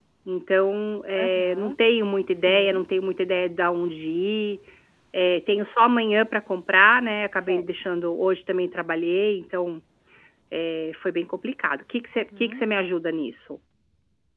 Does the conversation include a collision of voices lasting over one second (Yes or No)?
No